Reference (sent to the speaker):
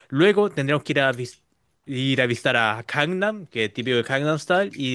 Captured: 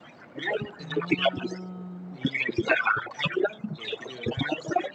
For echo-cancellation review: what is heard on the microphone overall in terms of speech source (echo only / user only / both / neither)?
both